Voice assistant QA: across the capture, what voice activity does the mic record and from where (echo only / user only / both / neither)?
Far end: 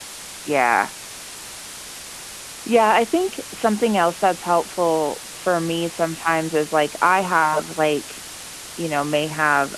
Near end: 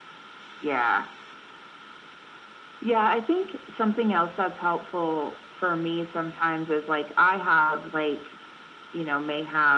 echo only